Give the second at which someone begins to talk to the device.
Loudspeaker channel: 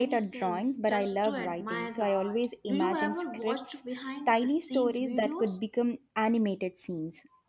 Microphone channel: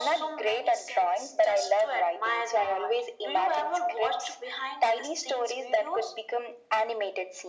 none

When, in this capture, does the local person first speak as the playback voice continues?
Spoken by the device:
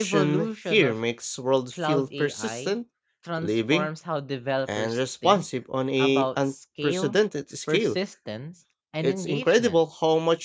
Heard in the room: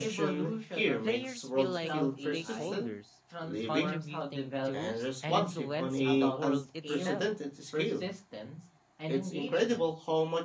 1.0 s

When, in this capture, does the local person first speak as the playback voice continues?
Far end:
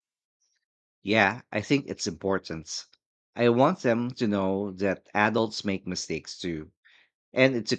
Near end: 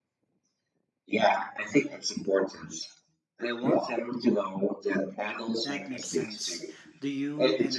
5.6 s

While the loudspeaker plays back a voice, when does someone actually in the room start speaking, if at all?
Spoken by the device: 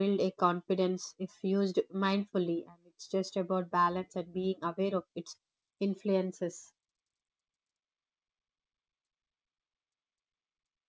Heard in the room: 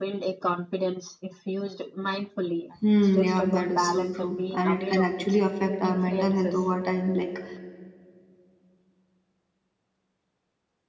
2.8 s

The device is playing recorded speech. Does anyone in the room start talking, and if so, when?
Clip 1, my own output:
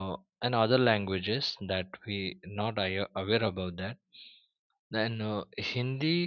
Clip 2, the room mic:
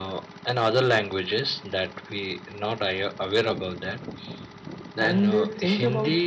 5.0 s

